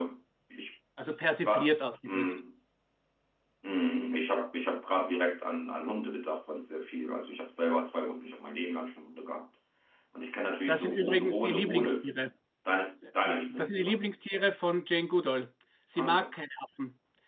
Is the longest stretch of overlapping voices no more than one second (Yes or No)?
No